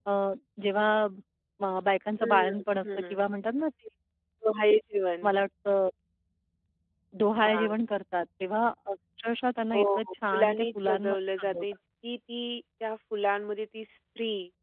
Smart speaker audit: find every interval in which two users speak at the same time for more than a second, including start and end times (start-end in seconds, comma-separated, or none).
10.3-11.7